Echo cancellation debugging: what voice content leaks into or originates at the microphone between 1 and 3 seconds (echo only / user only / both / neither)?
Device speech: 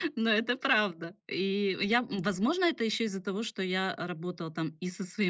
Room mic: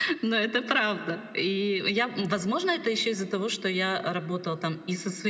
echo only